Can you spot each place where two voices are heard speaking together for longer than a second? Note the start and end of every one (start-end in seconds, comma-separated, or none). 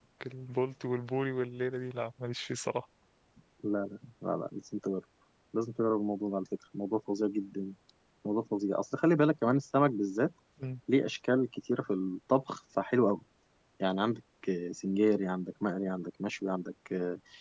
none